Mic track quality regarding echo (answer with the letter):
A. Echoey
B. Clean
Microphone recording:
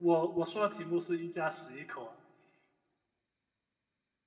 B